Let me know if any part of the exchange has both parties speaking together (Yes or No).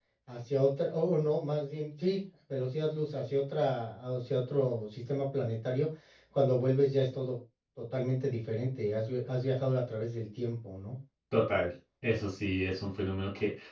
No